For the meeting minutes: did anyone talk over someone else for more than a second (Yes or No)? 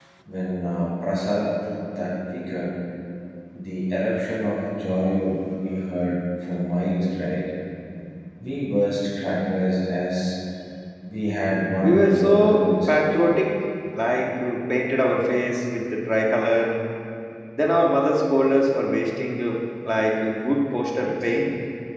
Yes